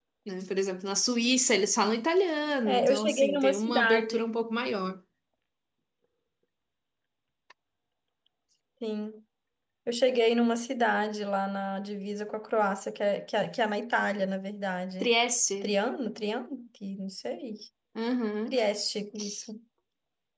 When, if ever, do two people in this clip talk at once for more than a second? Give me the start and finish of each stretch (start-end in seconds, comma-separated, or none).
2.6-4.2